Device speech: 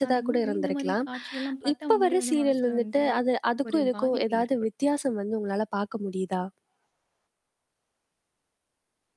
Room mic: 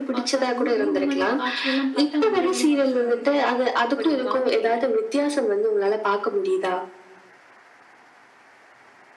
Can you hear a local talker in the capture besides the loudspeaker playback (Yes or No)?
No